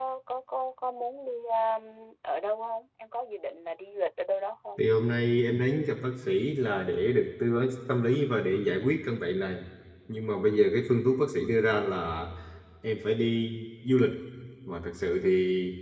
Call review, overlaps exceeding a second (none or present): none